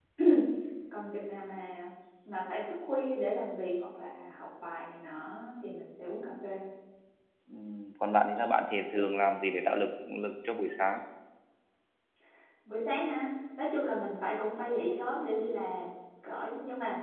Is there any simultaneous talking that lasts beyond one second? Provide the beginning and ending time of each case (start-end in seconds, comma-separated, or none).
none